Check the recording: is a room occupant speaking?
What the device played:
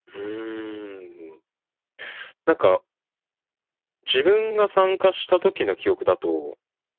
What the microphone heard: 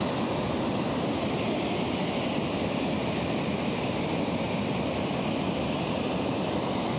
No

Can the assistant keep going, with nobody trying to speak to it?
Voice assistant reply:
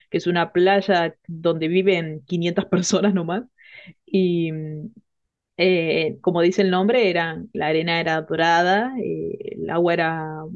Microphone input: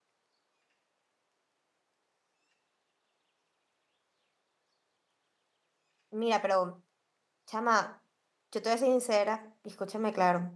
No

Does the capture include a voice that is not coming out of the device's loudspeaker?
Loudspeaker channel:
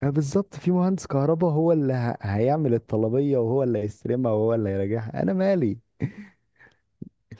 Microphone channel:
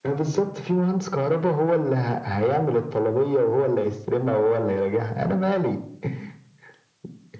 No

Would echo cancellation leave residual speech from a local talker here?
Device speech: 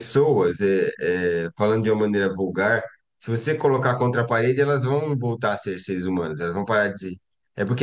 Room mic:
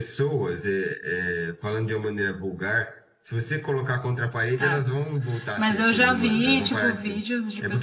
Yes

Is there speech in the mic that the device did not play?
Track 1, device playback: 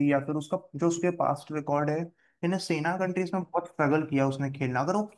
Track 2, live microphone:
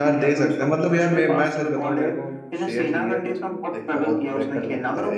Yes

